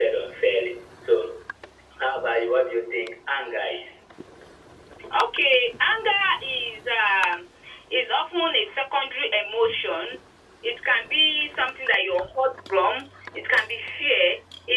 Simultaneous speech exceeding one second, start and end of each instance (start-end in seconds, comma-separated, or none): none